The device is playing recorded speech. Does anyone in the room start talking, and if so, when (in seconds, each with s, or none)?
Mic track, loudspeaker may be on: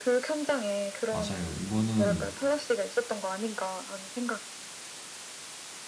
1.1 s